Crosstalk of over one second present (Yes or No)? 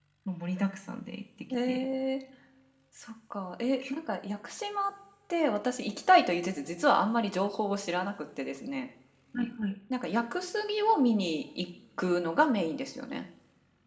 No